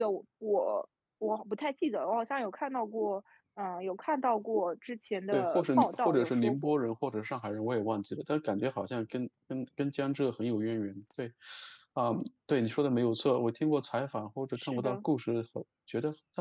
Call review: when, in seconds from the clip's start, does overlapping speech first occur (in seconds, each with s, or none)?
5.3 s